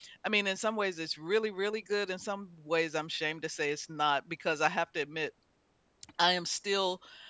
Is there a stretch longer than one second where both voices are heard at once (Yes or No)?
No